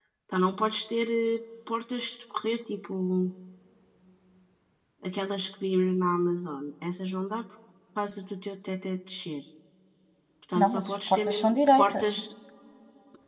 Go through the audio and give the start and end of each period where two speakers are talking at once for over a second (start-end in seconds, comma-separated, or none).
10.6-12.2